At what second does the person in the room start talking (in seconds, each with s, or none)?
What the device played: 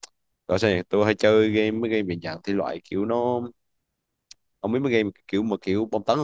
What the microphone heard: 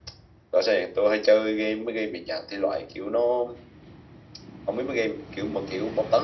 none